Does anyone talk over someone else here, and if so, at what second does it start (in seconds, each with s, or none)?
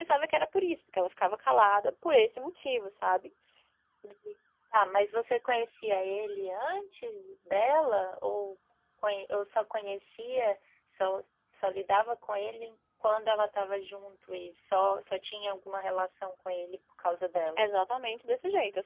none